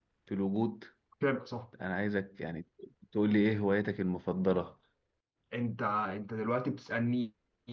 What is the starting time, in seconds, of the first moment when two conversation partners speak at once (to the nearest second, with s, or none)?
none